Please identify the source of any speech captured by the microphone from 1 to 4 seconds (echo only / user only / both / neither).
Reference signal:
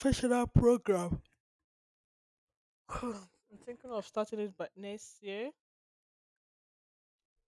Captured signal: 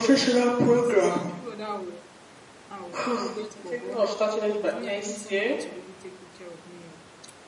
both